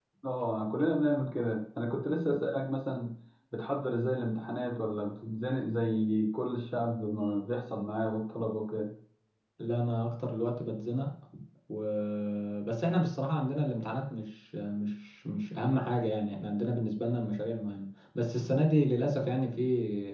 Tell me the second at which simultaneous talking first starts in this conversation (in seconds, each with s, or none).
none